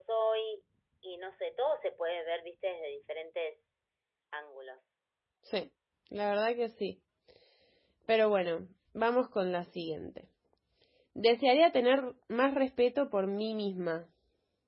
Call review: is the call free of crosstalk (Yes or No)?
Yes